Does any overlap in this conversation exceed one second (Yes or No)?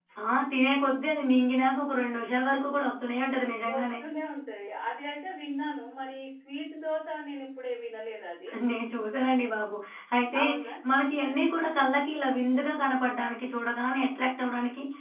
No